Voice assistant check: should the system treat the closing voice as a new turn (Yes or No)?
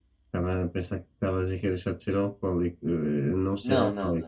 Yes